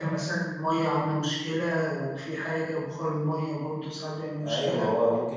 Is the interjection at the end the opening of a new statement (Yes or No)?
Yes